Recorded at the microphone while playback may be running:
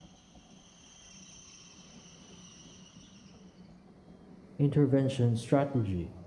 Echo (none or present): none